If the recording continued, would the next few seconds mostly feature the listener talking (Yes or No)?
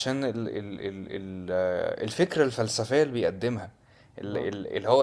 No